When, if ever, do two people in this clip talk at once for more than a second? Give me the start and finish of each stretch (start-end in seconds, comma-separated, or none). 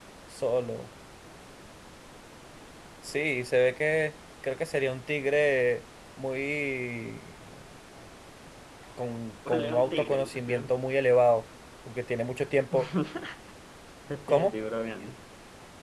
9.5-10.7